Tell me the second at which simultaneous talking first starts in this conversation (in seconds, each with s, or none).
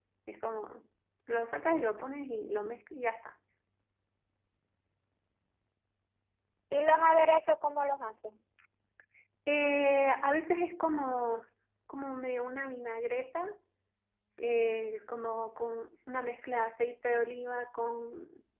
none